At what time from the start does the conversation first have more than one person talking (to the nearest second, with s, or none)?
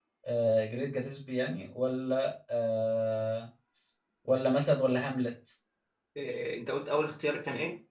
none